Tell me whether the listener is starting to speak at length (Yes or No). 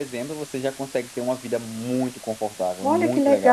Yes